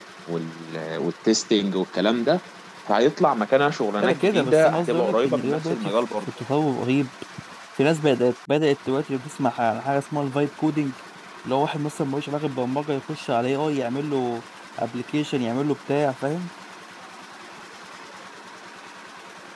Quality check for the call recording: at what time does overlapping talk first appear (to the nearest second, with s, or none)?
4 s